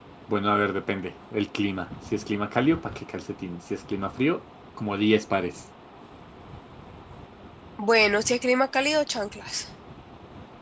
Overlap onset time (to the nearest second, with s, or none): none